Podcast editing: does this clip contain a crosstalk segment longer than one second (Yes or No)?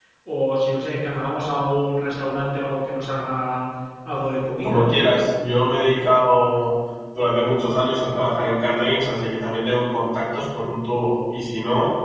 No